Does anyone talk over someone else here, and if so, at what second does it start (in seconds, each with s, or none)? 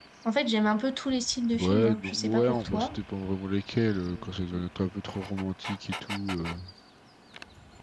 1.5 s